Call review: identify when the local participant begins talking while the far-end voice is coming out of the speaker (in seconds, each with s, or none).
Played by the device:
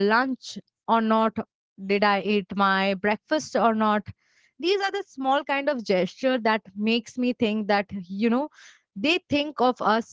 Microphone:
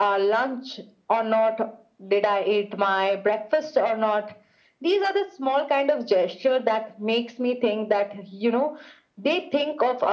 none